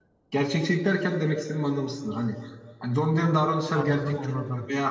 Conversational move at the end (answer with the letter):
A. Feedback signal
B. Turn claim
A